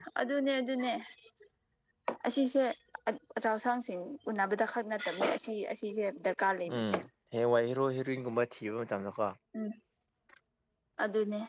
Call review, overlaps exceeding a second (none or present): none